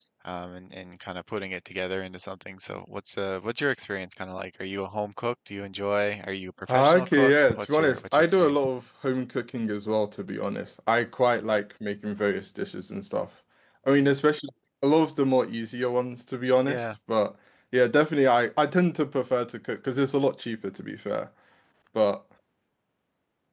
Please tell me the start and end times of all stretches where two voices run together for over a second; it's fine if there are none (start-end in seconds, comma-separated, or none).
6.7-8.6